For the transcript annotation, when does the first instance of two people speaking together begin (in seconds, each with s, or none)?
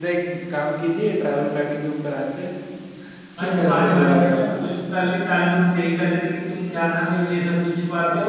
3.4 s